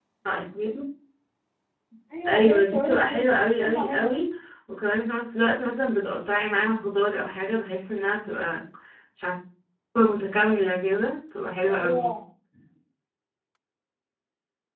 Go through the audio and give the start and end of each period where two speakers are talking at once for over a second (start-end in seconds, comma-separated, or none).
2.2-4.2